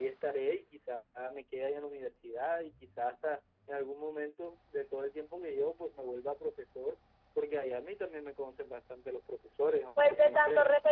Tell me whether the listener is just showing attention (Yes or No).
No